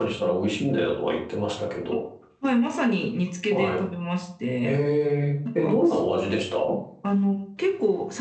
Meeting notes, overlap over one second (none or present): none